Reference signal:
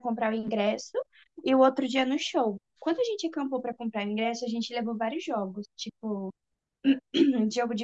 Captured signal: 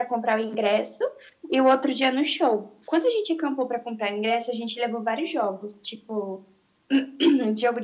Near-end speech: none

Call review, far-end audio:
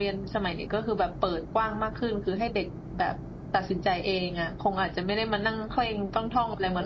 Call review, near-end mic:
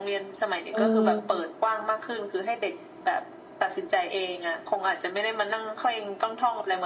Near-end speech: present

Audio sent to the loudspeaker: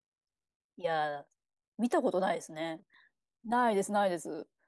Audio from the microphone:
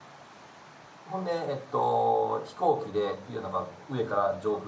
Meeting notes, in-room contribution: present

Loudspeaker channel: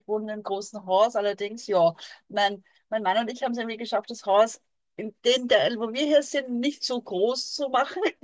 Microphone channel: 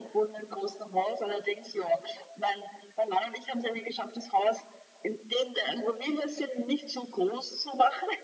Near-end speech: none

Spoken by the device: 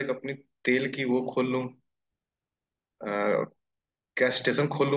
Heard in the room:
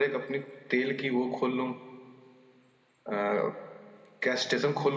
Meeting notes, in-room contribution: none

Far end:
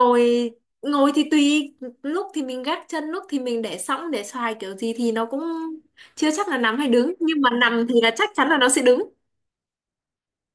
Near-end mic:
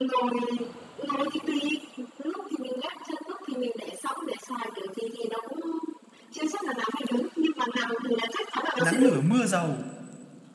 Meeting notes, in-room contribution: present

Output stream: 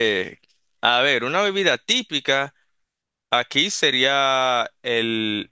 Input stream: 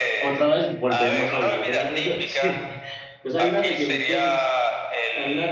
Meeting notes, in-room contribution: present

